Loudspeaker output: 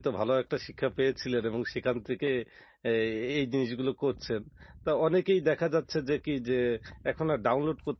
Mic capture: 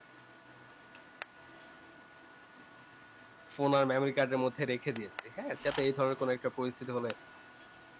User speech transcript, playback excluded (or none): ফোন আর মেমোরি কার্ডের মধ্যে রেখে দিয়েছি। হ্যাঁ? যাতে এই ধরনের কোনো একটা পরিস্থিতি হলে